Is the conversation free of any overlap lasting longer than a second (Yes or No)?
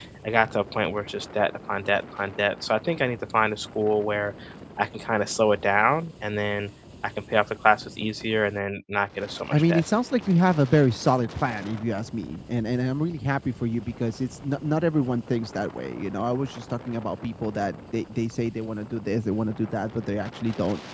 Yes